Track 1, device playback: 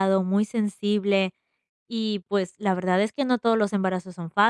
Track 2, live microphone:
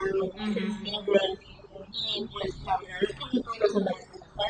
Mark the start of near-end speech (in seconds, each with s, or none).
0.4 s